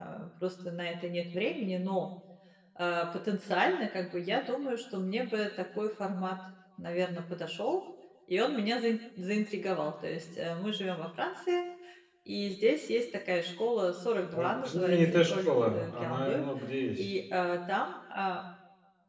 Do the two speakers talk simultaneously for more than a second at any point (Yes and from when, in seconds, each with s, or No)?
Yes, from 14.3 s